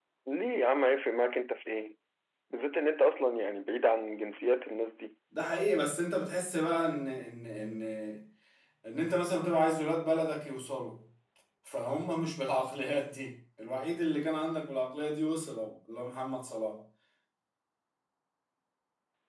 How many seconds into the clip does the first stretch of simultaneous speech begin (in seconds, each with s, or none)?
none